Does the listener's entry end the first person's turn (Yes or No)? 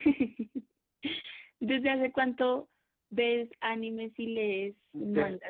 Yes